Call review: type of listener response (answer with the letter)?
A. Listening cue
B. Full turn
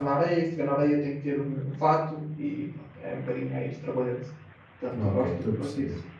B